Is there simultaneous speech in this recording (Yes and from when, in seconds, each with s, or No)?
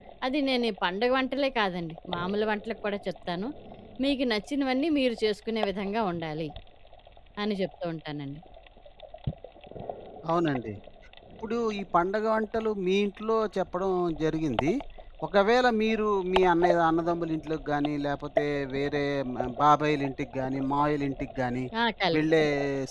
No